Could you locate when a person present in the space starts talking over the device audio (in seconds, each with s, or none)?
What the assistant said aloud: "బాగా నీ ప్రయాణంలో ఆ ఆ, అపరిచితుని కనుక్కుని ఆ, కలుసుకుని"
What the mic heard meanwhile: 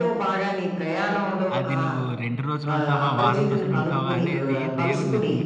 1.6 s